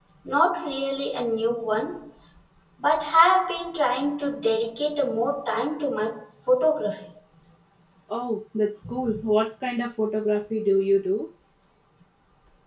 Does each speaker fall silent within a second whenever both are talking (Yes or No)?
Yes